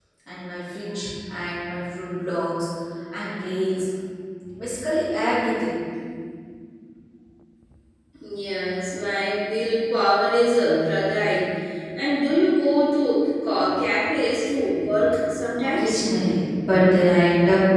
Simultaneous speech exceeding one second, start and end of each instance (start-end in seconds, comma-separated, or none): none